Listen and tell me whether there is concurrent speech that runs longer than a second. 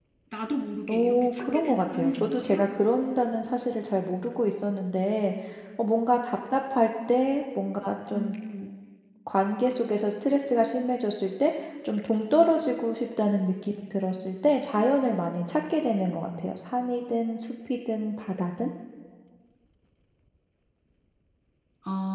Yes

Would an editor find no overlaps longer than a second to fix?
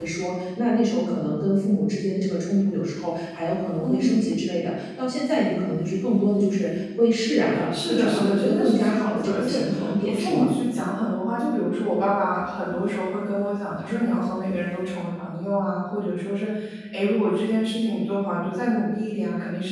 No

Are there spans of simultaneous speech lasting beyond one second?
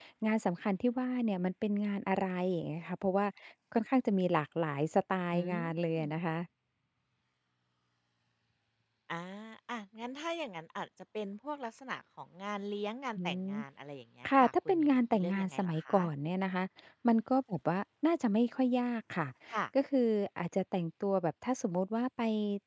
Yes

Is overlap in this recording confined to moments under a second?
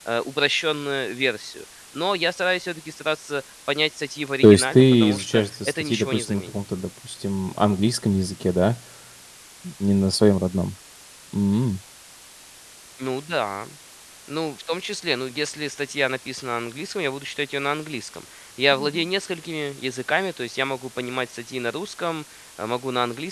No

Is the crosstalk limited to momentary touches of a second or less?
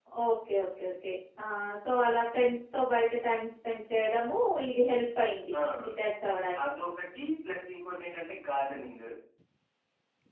Yes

